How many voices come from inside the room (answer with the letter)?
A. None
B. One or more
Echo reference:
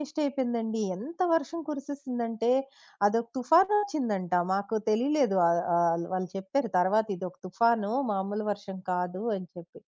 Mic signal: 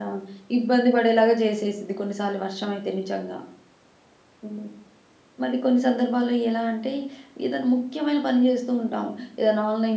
B